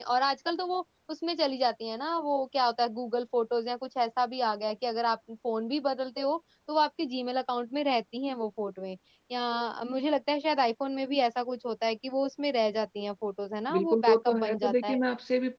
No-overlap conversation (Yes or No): No